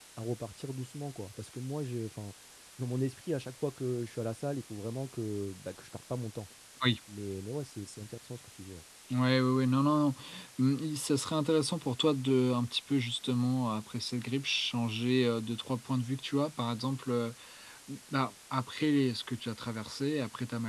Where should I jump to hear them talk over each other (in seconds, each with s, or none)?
none